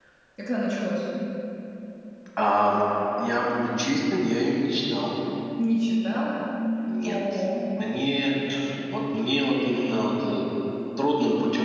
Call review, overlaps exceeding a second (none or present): none